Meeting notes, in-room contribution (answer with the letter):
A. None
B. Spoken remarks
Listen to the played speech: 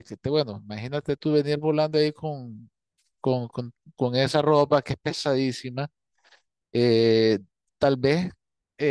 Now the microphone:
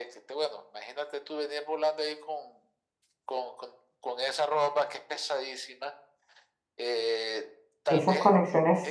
B